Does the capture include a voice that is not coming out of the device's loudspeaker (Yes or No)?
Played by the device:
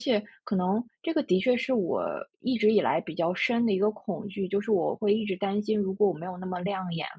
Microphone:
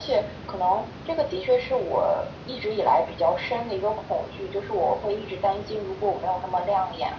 No